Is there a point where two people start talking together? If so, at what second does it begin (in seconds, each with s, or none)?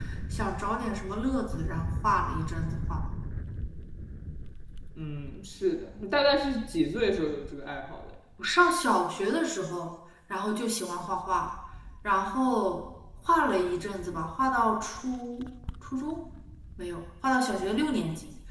none